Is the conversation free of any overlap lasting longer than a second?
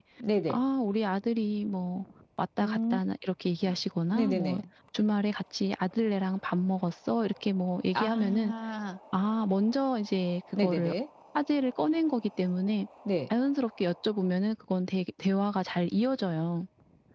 Yes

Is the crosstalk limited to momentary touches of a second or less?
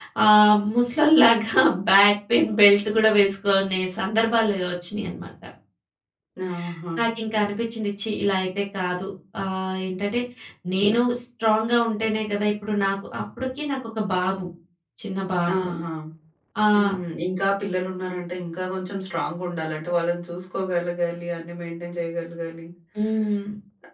Yes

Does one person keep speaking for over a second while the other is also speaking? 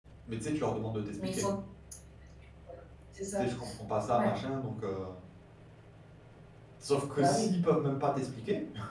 No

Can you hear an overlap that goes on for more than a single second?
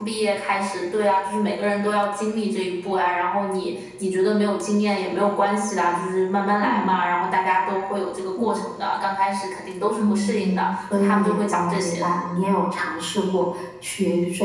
Yes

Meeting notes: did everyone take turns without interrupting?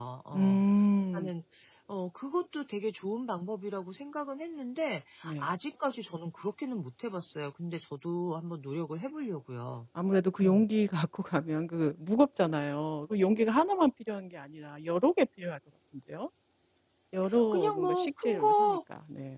No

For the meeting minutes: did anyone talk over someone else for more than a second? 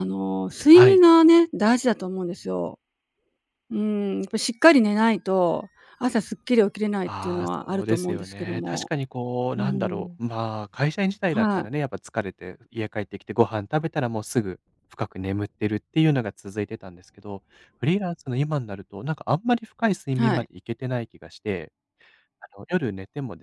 Yes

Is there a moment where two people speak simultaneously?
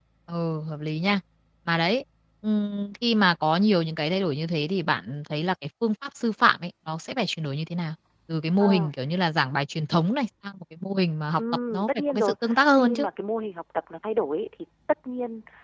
Yes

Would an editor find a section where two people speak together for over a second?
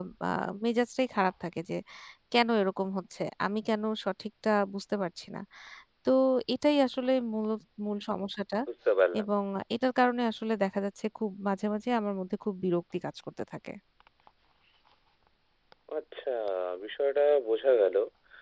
No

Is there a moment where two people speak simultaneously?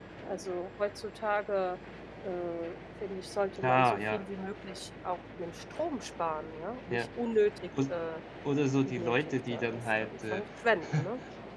Yes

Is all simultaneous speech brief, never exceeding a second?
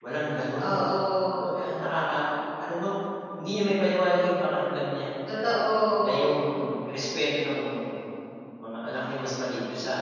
Yes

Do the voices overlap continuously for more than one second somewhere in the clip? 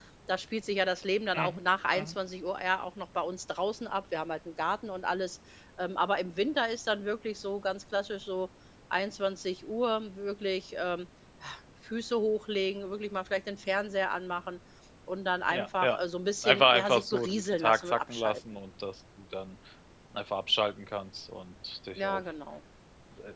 Yes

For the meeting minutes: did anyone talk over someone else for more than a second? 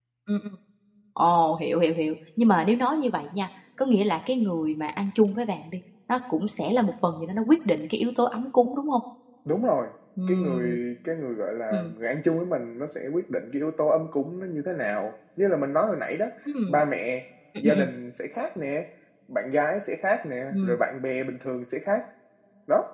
No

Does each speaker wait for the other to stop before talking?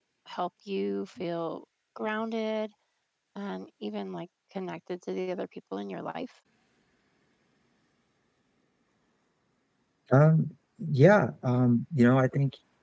Yes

